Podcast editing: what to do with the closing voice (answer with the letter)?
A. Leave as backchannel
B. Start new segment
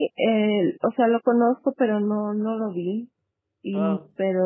A